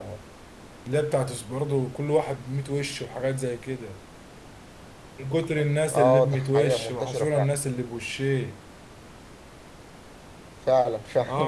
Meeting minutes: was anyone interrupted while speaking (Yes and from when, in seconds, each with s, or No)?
Yes, from 5.9 s